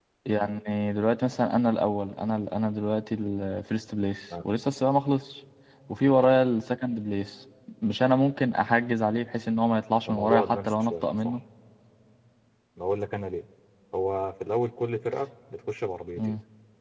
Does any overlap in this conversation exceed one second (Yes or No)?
Yes